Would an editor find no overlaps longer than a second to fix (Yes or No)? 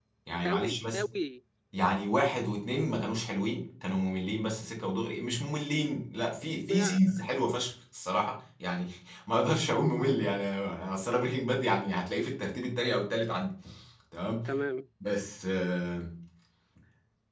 Yes